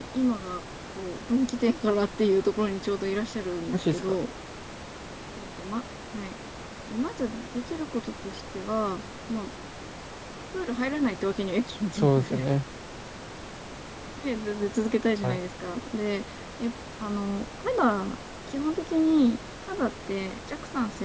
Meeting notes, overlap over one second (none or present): none